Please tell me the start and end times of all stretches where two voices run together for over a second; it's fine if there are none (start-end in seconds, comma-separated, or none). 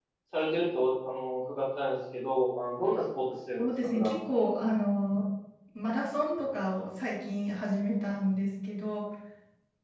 none